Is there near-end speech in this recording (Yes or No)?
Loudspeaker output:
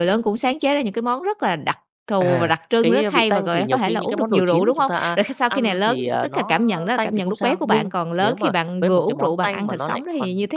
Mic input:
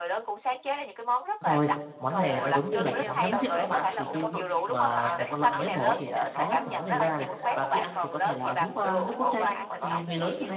Yes